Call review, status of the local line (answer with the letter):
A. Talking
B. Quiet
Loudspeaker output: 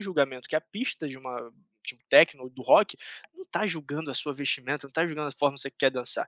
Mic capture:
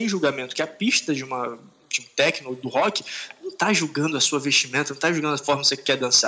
B